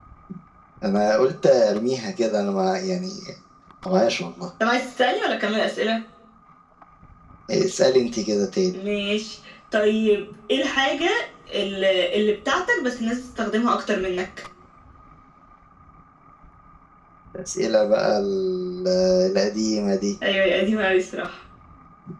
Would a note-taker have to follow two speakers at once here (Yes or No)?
No